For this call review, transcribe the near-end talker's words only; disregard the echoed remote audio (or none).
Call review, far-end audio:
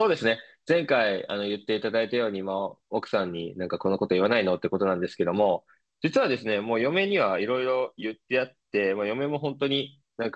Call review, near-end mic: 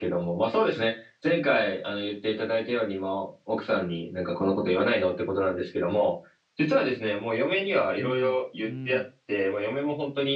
うん。うん。